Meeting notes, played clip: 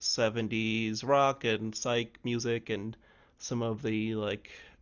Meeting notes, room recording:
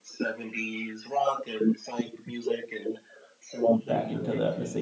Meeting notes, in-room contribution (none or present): present